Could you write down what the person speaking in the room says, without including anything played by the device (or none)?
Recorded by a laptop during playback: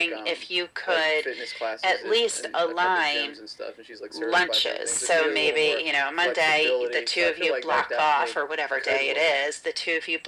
none